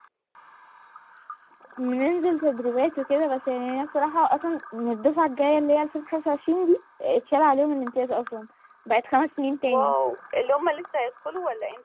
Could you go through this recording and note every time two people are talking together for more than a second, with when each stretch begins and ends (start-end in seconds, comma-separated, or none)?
none